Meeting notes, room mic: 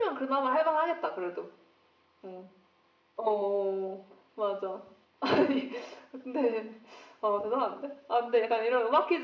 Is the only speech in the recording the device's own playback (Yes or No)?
Yes